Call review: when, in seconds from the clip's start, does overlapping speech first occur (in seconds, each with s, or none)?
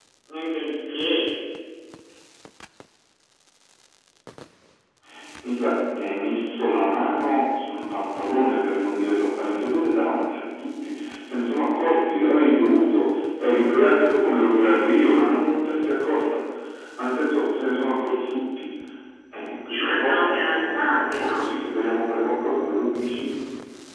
19.8 s